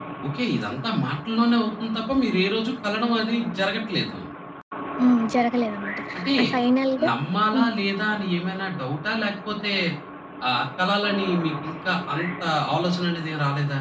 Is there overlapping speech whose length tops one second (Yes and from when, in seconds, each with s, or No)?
No